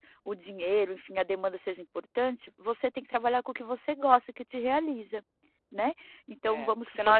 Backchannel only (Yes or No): No